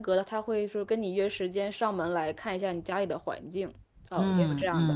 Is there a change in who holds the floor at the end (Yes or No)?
Yes